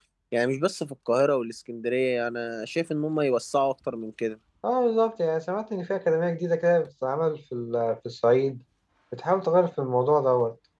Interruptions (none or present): none